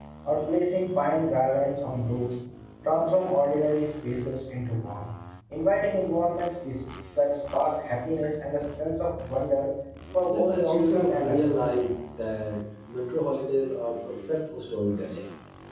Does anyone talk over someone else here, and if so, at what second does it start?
10 s

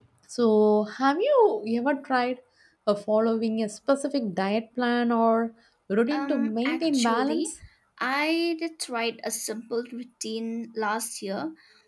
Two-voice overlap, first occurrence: 6 s

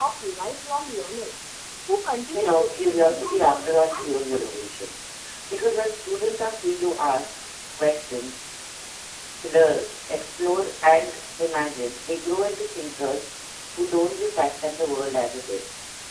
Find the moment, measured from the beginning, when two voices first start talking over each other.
2 s

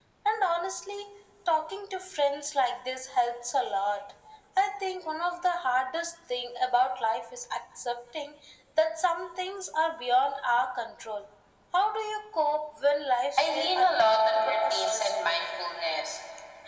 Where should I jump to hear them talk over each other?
13 s

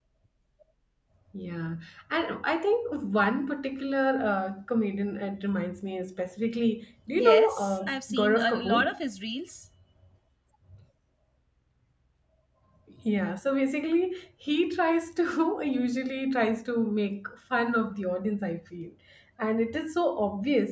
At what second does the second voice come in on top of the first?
7 s

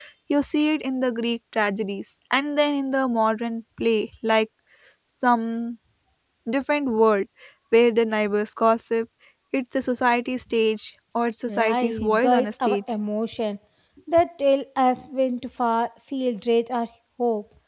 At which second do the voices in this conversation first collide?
11 s

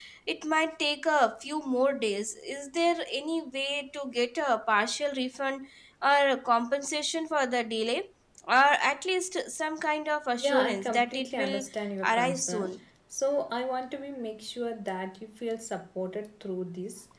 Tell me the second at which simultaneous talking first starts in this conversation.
10 s

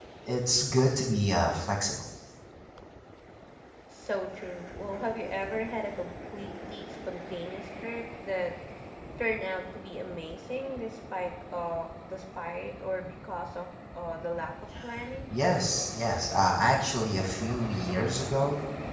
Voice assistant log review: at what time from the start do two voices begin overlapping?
none

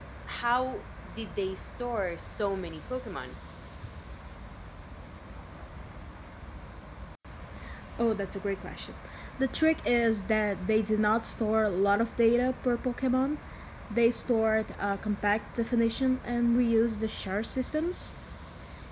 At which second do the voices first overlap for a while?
none

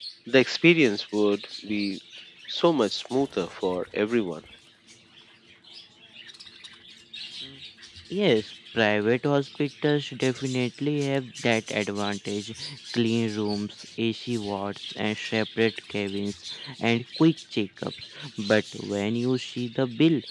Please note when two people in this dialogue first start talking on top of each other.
none

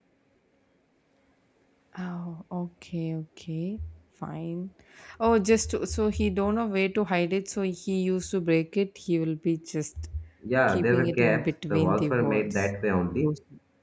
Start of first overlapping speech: 11 s

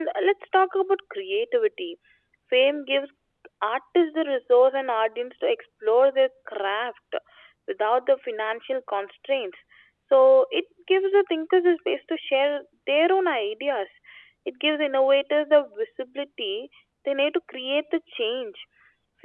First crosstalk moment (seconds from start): none

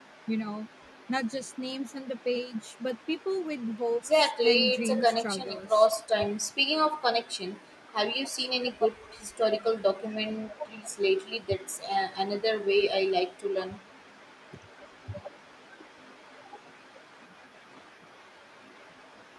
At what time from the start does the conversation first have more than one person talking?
4 s

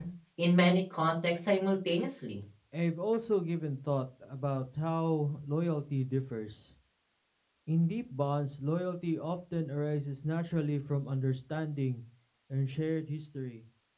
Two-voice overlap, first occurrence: none

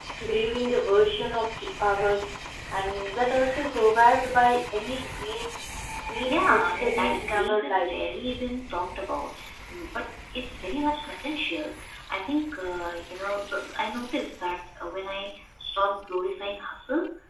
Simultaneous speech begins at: 6 s

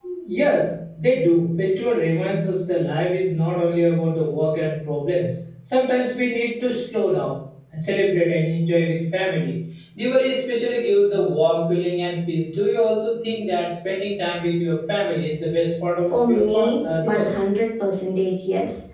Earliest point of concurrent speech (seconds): 16 s

